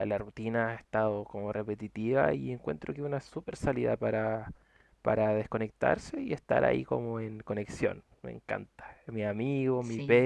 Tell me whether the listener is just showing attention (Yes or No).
Yes